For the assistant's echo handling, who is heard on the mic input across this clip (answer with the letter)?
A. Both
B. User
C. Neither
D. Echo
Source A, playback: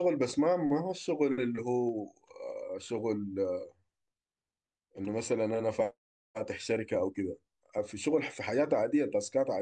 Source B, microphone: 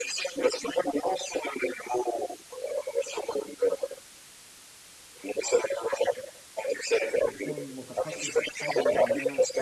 A